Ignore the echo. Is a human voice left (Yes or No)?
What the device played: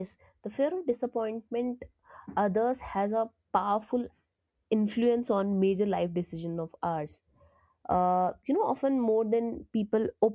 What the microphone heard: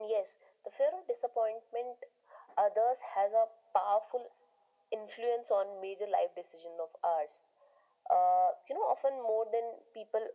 No